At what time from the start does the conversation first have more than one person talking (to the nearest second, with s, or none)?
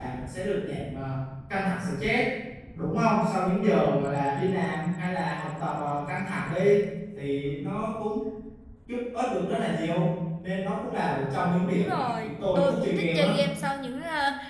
12 s